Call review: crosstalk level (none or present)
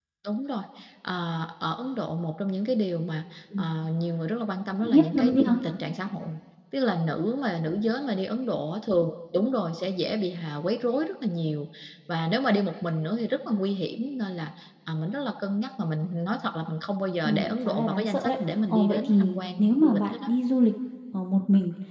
present